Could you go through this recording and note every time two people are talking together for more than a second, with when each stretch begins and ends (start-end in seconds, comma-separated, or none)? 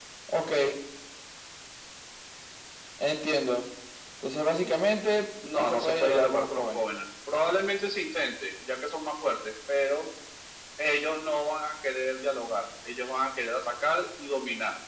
5.4-6.8